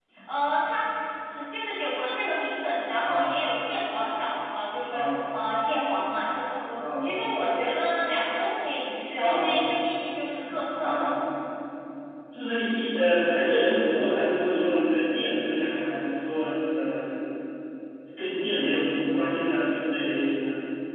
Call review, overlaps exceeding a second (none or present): none